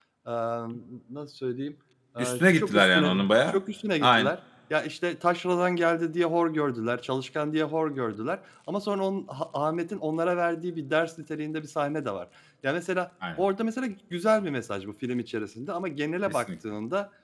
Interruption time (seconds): 2.2 s

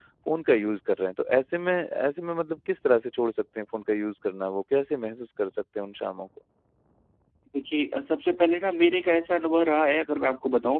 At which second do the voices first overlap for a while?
none

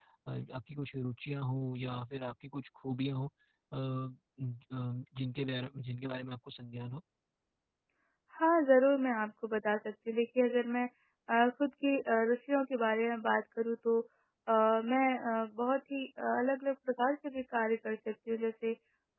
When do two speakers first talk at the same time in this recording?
none

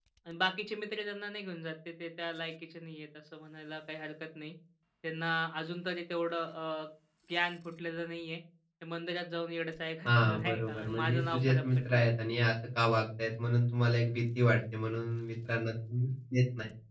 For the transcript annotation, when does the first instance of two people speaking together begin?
10.1 s

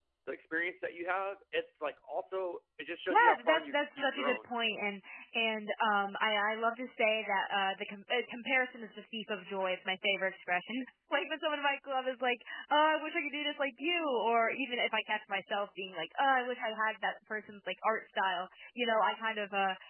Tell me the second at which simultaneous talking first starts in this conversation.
3.1 s

